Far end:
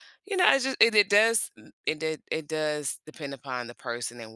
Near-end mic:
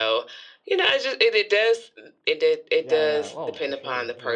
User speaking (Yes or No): Yes